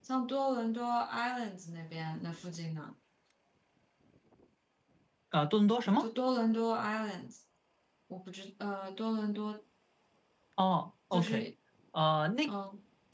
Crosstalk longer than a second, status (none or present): none